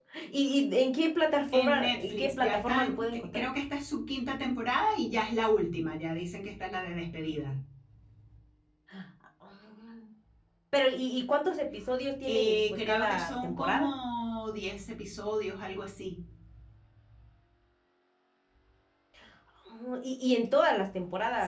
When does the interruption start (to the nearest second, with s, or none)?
2 s